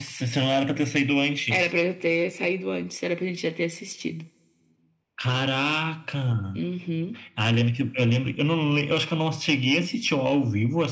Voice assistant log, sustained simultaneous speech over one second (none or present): none